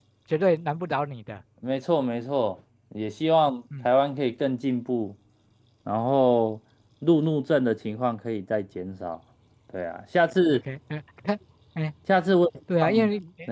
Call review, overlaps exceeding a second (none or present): none